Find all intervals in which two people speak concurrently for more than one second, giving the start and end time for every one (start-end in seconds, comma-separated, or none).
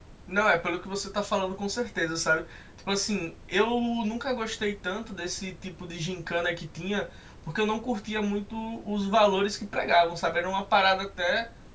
none